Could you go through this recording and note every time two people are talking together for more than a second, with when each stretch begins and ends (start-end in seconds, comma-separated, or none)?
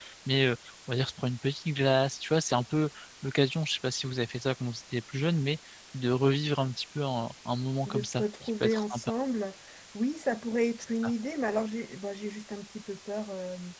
7.8-9.1